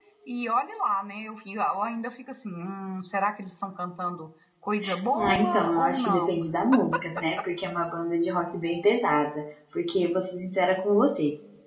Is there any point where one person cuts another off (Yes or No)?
Yes